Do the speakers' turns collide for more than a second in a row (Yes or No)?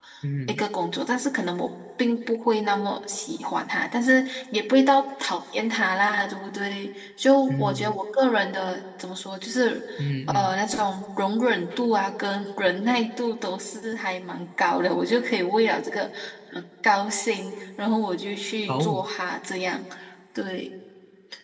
No